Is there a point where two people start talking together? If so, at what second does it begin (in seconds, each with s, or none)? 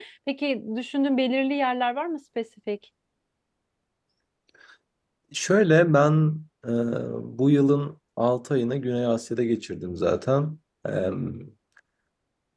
none